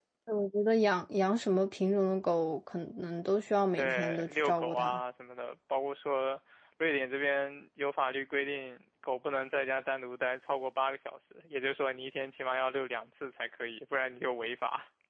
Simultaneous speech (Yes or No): Yes